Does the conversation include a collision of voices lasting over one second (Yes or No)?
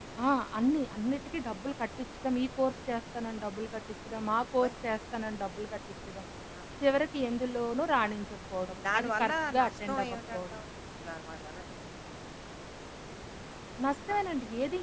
Yes